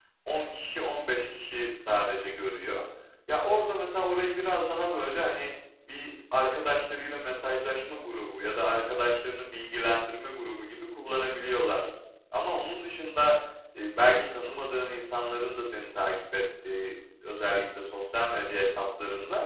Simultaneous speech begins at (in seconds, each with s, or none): none